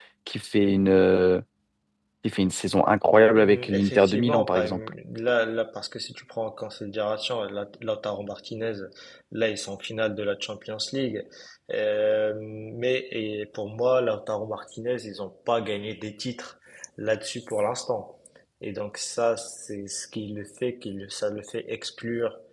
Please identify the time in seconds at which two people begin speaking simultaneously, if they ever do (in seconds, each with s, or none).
3.4 s